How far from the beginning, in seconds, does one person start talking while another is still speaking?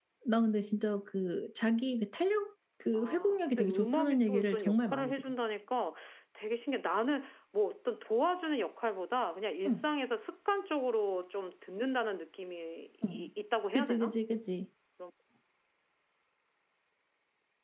2.9 s

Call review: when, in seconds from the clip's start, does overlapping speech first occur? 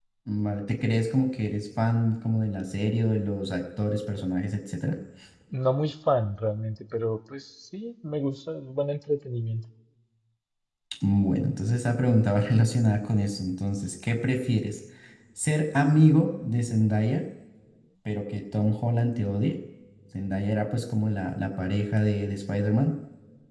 none

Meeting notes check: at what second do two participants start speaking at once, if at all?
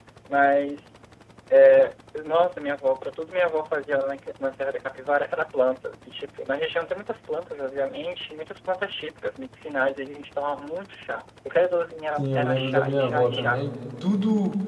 12.2 s

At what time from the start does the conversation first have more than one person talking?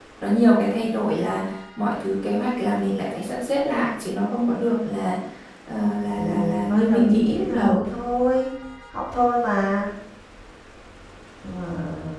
6.2 s

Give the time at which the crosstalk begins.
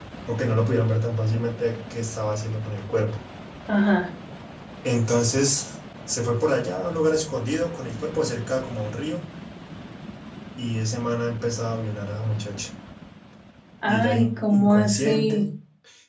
13.9 s

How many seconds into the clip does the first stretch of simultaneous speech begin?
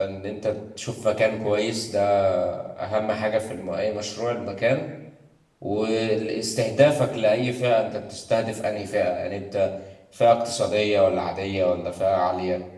none

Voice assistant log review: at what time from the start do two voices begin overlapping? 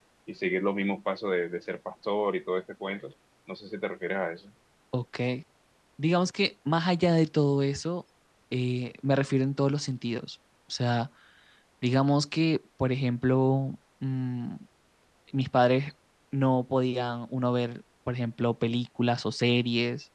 none

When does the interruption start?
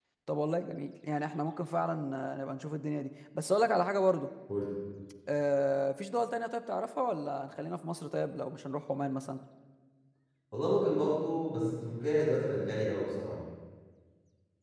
none

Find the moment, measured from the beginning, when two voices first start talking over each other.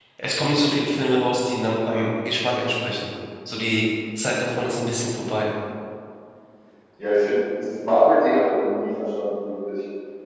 none

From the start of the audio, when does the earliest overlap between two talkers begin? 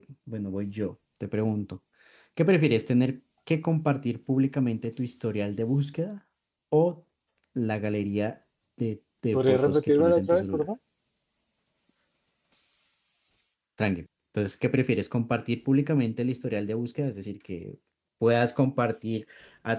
9.3 s

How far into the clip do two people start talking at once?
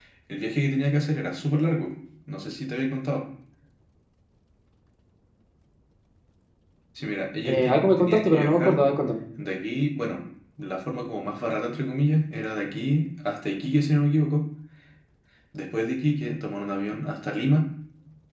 7.5 s

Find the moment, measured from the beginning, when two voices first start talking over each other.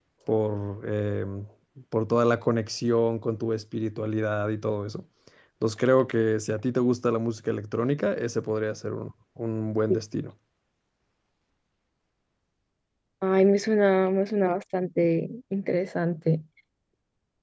none

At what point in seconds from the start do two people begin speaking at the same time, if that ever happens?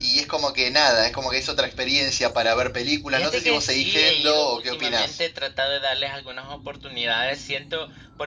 3.1 s

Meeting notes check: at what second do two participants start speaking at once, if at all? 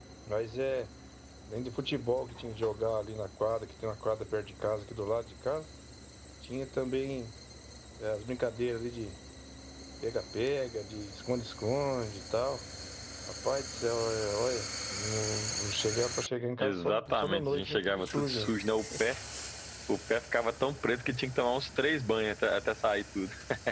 16.6 s

